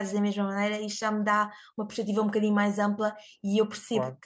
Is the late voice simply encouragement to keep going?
Yes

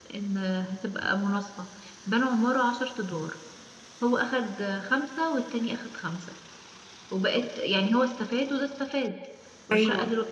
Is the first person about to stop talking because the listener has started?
No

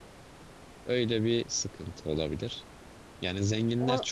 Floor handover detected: No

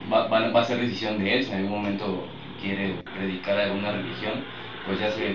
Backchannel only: Yes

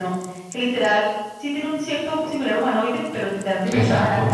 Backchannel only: Yes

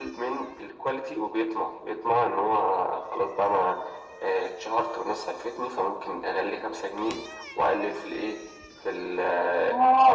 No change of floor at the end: No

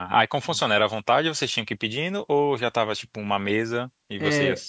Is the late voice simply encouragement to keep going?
No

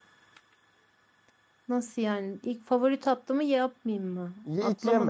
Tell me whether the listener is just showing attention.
No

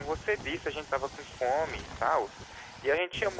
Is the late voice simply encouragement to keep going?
No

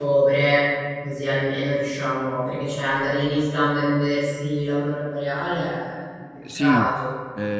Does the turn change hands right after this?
Yes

